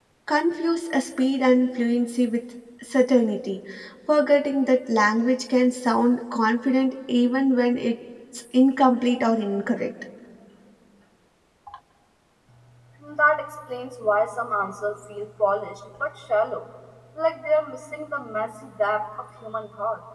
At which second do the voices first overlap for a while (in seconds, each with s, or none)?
none